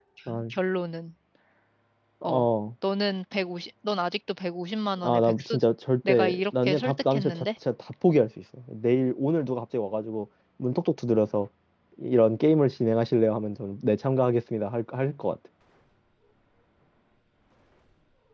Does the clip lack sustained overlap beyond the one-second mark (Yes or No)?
No